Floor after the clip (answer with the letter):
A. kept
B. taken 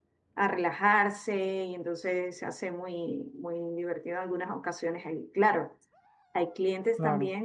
A